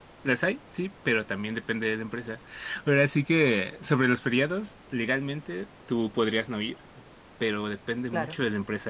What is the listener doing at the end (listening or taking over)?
listening